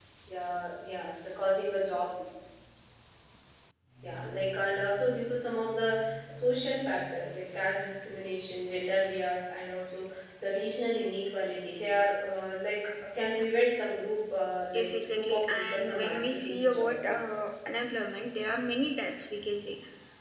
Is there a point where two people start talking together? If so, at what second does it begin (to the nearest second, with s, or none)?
15 s